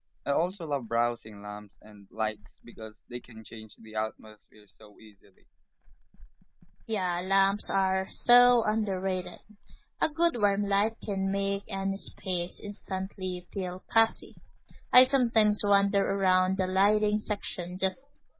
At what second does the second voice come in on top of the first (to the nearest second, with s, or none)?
none